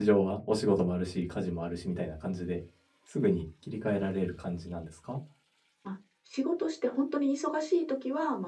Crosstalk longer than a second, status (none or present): none